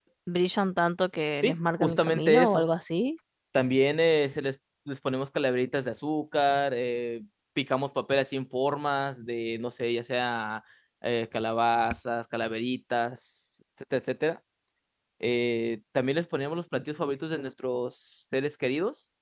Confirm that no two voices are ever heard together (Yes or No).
No